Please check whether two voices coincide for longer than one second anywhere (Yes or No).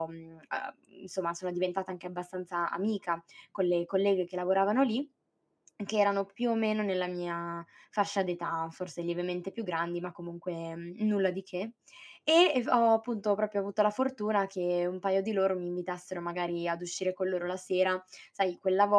No